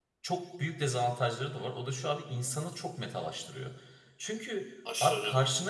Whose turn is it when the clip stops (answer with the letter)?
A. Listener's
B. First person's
B